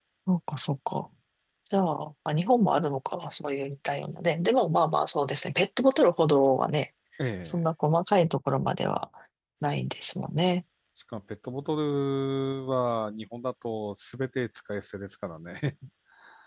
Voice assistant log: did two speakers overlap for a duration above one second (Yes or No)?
No